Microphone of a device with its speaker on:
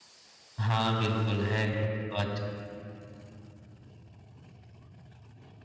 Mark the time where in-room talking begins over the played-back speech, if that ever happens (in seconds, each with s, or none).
0.6 s